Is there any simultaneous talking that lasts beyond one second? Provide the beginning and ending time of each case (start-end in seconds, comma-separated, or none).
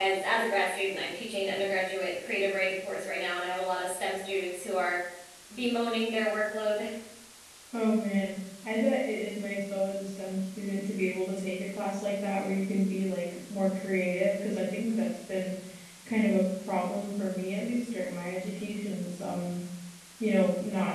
none